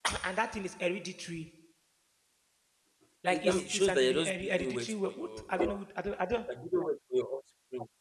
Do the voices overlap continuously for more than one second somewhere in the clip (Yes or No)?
Yes